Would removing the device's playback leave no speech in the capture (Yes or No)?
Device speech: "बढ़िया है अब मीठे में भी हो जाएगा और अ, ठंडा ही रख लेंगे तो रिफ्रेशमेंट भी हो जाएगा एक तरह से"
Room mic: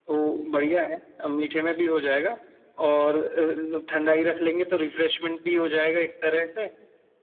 Yes